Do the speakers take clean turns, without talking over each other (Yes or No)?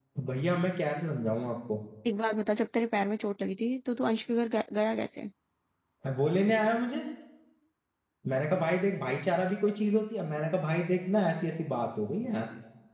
Yes